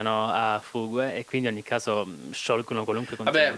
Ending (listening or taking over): taking over